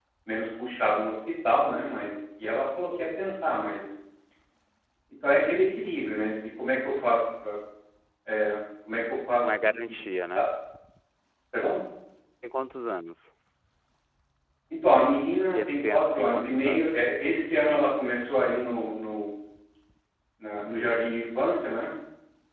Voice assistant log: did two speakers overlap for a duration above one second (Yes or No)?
Yes